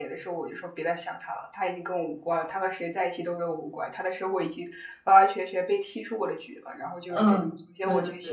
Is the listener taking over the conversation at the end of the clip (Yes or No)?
Yes